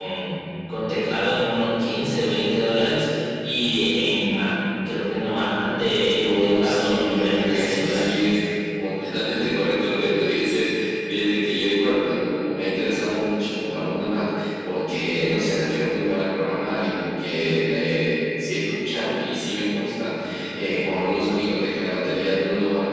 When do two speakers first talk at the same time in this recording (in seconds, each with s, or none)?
6.2 s